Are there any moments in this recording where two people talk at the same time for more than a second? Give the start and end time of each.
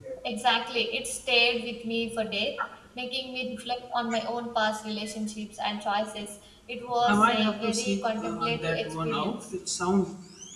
7.0-9.3

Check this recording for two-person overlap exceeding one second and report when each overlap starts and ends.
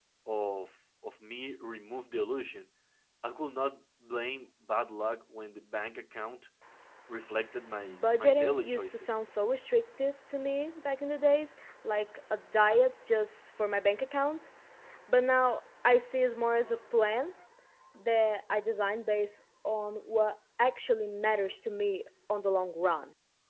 7.8-9.1

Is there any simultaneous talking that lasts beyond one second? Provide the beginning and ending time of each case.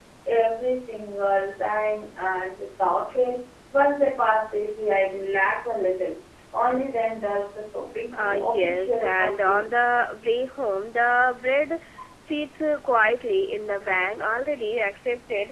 8.2-9.6

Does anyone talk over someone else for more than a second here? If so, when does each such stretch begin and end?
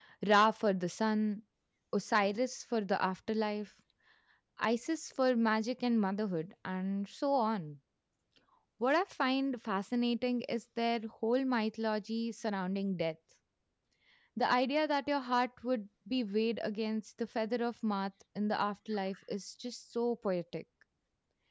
none

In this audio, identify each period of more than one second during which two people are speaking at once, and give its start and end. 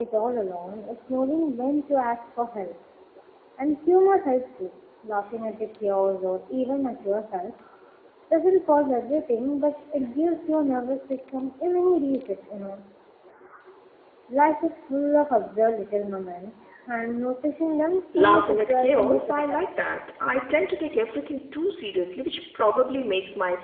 18.2-19.6

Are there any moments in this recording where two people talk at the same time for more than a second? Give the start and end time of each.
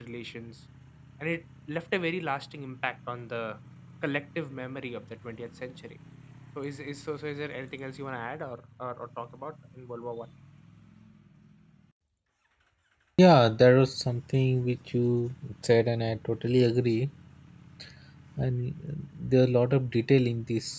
none

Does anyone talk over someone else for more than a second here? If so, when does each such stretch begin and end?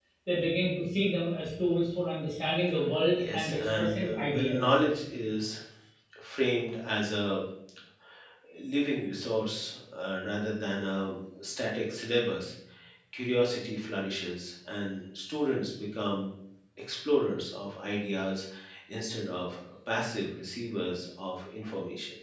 3.2-4.7

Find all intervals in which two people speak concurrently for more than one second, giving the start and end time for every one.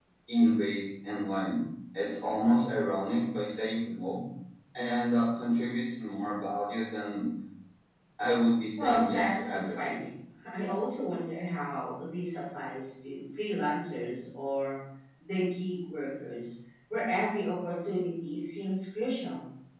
8.8-10.1

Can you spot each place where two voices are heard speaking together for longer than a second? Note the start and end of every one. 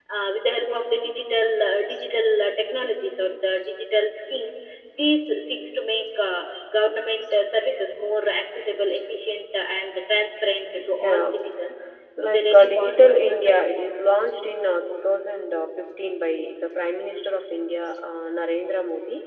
12.2-13.6

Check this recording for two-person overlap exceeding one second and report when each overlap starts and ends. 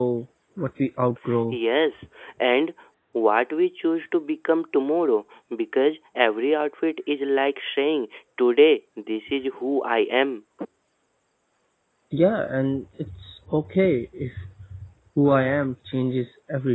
none

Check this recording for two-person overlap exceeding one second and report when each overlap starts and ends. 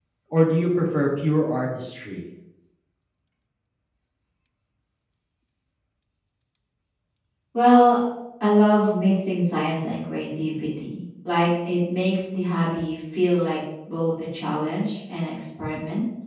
none

